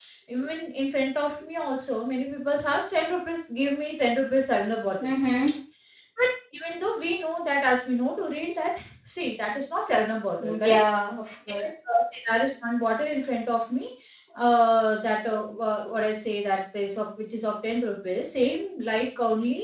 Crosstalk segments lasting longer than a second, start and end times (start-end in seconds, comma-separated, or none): none